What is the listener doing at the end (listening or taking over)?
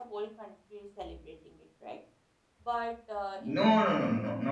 taking over